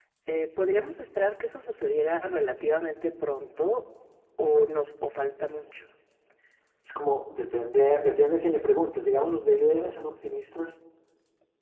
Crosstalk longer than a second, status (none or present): none